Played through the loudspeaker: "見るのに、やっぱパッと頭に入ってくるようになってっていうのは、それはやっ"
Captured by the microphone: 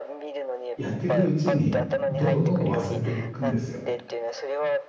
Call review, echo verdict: present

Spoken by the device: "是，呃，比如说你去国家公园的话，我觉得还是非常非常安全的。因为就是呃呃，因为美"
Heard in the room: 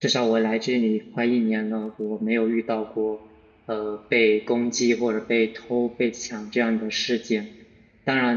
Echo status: none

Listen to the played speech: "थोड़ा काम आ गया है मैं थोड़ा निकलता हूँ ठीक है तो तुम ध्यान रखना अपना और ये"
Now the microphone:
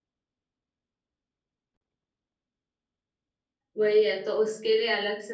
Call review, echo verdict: none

